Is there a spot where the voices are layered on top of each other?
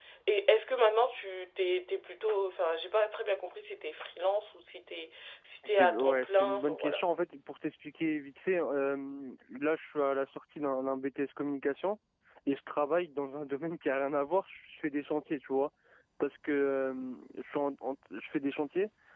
Yes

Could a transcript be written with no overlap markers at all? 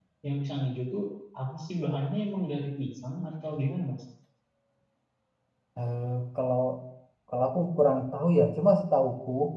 Yes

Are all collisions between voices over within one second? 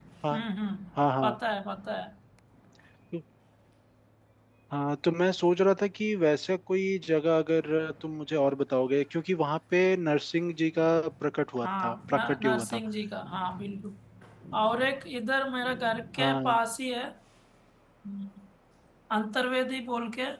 No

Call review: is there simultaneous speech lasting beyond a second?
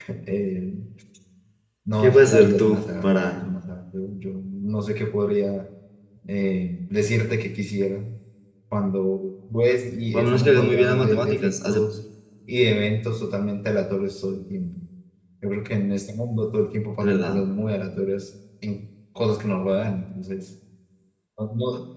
Yes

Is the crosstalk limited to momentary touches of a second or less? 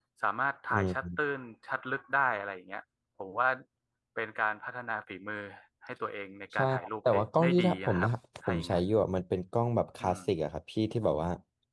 No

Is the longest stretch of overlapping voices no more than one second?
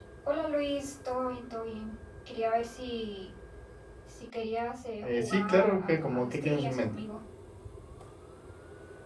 No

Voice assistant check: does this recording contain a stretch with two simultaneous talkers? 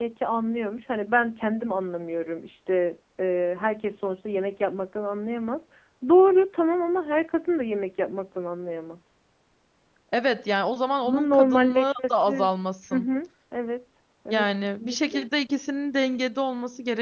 Yes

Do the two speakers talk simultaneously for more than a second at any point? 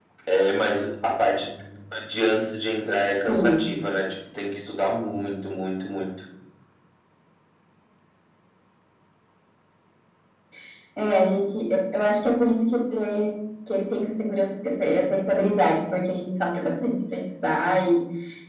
No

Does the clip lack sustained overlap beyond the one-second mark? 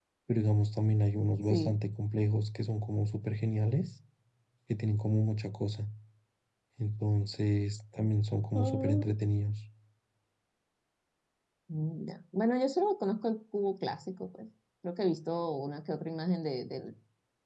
Yes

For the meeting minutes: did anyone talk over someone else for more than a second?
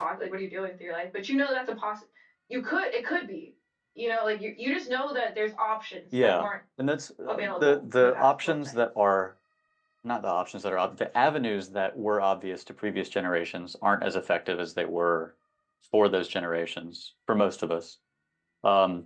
Yes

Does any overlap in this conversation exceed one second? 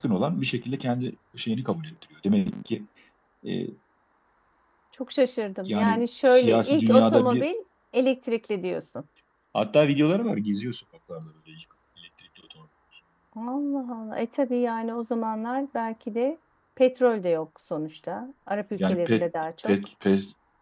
Yes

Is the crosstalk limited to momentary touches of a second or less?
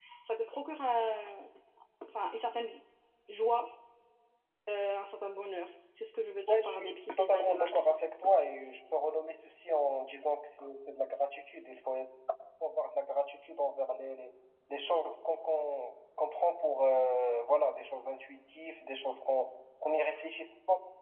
No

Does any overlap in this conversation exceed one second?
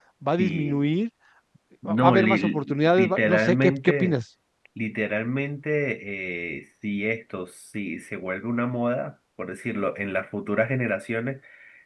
Yes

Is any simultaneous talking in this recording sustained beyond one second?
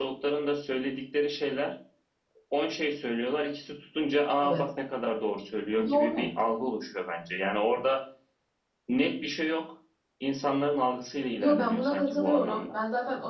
Yes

